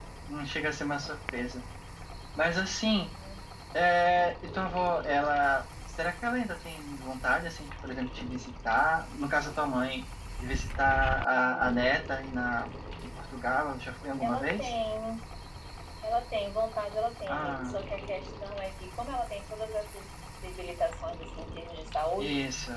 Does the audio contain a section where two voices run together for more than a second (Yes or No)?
No